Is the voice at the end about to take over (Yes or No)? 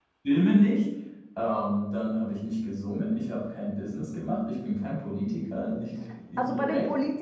Yes